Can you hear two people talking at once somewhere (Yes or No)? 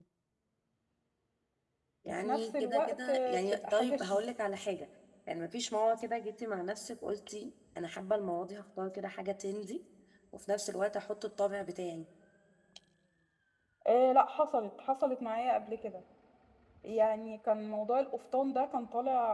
Yes